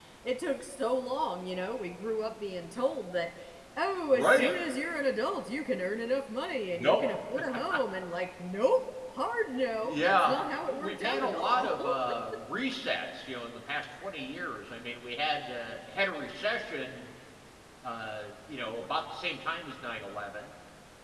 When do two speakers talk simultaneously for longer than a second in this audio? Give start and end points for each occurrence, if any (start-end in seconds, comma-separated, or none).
9.8-11.7